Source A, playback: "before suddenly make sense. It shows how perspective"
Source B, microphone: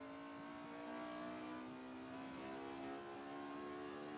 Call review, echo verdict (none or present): none